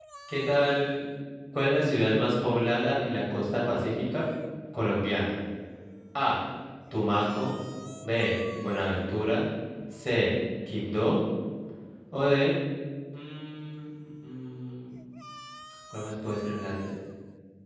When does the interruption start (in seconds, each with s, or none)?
none